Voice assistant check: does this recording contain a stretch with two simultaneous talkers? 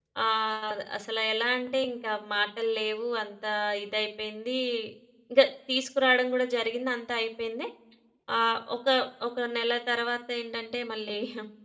No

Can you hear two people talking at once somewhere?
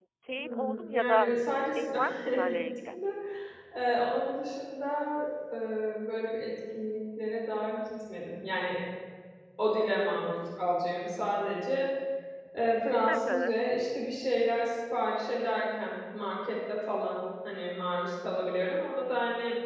Yes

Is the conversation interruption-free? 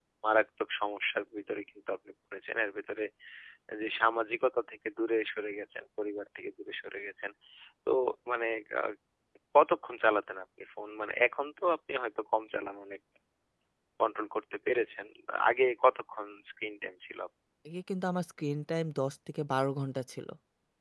Yes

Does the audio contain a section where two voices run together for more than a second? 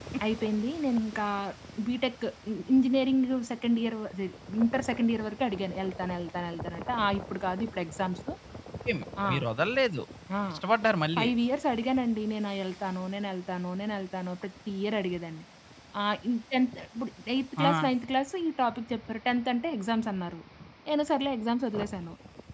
No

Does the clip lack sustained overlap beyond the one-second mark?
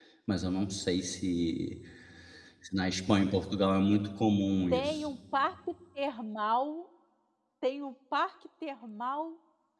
Yes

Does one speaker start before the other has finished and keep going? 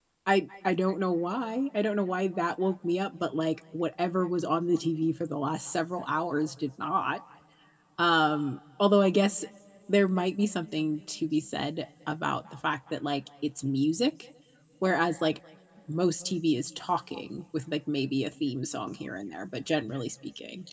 No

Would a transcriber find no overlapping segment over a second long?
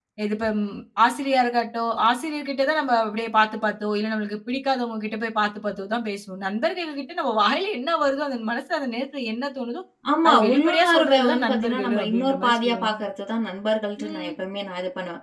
No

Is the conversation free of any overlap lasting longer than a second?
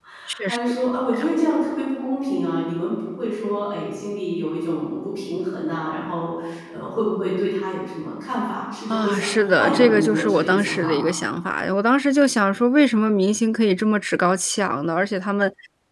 No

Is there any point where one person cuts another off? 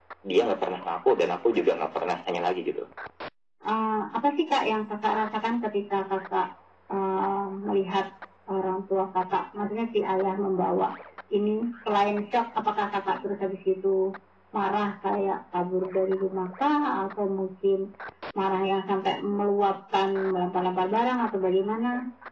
No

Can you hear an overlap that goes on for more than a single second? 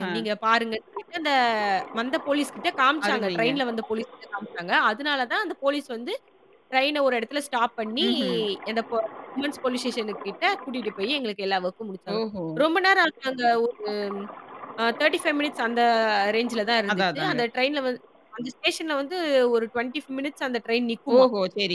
No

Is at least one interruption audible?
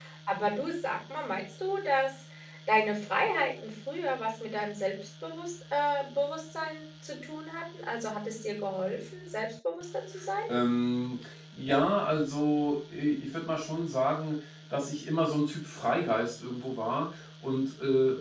No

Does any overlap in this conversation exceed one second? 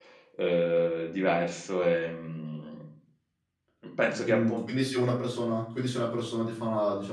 No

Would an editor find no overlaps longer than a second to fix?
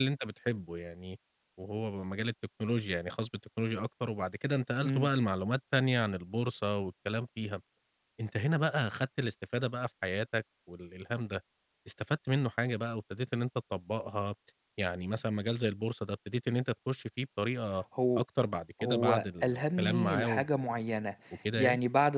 No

